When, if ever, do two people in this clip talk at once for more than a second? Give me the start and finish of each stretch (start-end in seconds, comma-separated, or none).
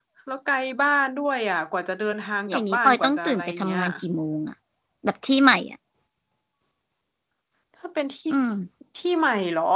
2.5-3.8